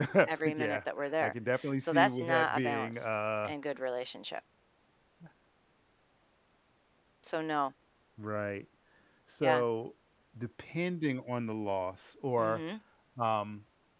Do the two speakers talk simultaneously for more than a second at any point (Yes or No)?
Yes